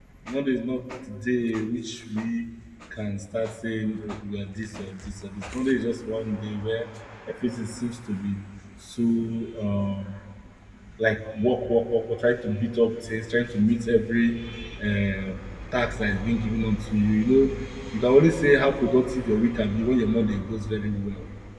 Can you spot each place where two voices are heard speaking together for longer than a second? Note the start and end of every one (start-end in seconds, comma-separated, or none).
none